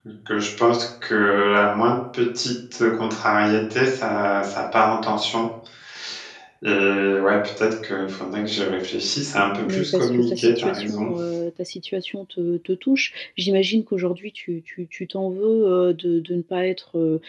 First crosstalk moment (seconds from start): 9.6 s

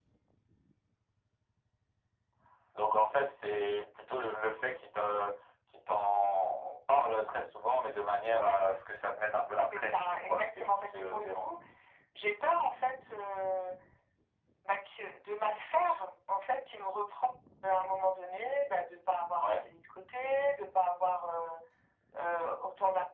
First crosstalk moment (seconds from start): 9.7 s

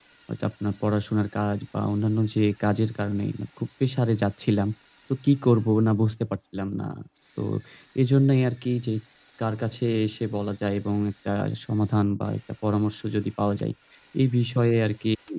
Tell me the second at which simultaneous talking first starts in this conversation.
none

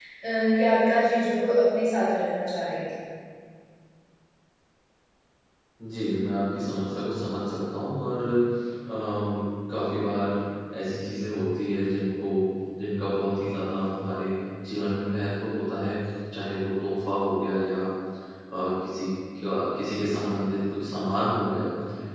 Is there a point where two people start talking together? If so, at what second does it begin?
none

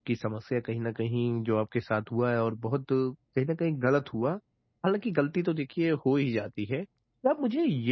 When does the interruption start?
none

